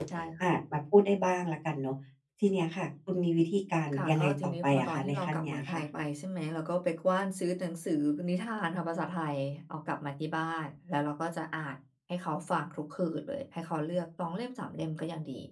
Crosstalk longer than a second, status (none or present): present